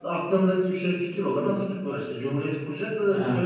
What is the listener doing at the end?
taking over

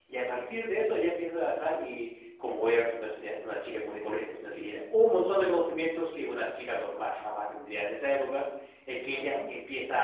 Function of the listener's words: listening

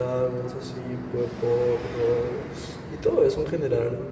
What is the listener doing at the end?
listening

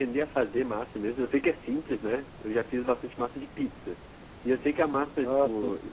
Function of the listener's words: listening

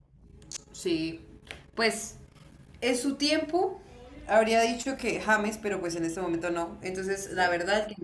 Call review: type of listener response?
listening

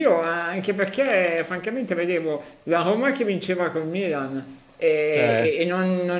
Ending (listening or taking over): listening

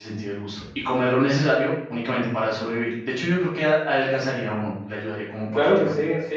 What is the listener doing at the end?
taking over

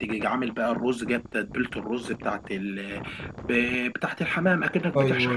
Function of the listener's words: listening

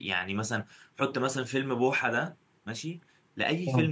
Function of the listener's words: listening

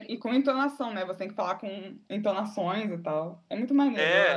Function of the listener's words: taking over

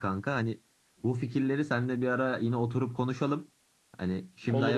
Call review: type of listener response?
listening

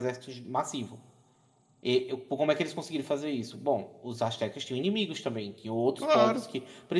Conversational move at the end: listening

